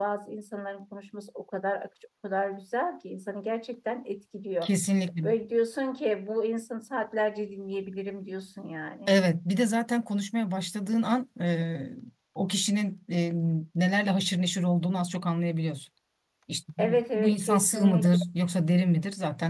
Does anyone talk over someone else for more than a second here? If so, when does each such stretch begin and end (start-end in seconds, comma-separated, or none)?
16.8-18.2